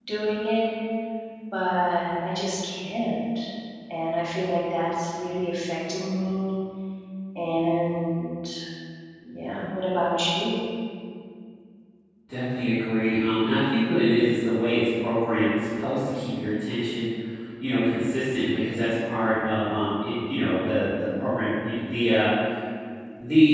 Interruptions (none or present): none